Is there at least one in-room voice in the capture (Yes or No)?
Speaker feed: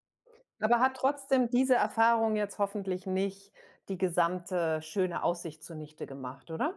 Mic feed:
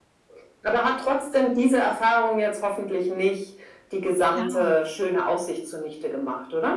Yes